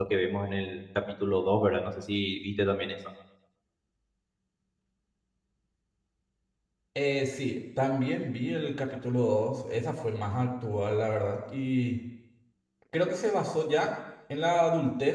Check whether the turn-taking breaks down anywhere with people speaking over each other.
No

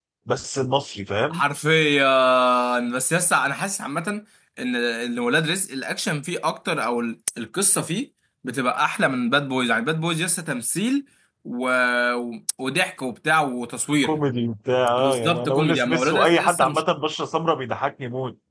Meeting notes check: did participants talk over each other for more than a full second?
Yes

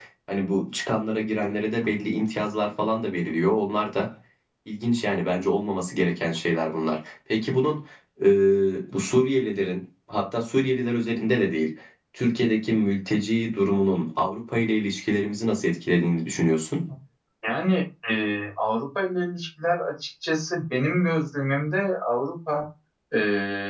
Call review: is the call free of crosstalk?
Yes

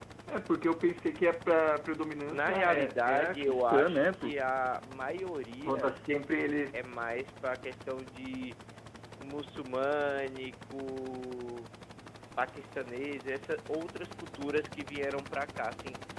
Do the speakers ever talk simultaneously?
Yes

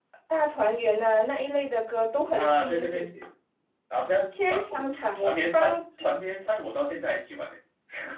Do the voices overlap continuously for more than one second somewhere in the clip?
Yes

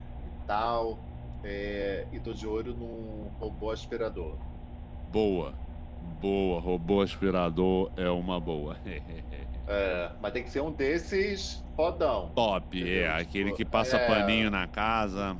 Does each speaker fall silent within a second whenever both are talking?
No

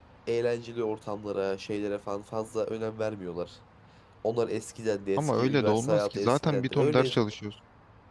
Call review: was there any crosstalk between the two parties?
Yes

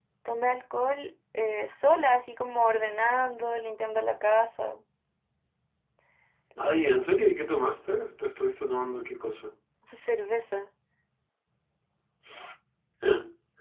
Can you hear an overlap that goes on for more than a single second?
No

